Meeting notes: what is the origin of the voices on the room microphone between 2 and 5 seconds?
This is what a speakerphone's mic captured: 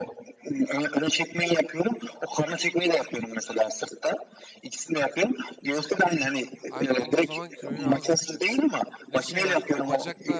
echo only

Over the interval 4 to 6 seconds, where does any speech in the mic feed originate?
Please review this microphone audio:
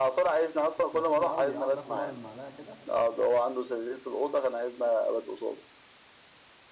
echo only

